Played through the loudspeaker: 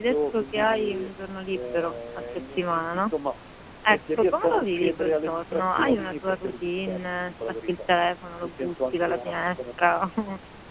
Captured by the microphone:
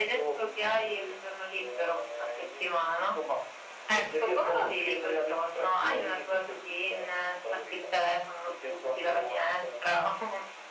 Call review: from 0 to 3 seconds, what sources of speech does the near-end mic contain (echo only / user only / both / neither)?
echo only